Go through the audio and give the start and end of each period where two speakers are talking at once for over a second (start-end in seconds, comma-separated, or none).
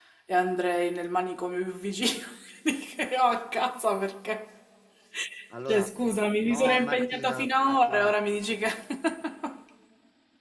6.5-8.1